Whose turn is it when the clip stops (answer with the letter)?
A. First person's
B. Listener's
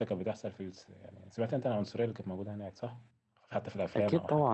B